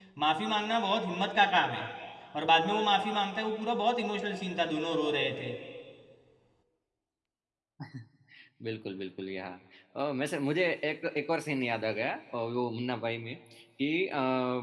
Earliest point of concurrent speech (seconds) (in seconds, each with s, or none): none